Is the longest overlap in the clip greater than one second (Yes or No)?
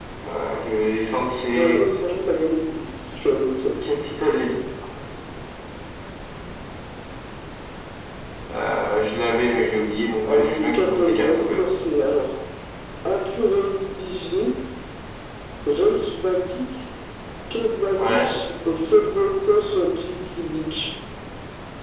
Yes